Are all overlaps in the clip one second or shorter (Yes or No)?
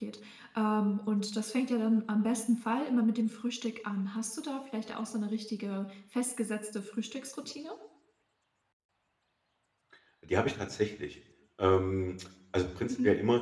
Yes